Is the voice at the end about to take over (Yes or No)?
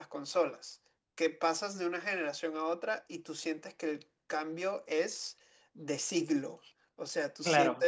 No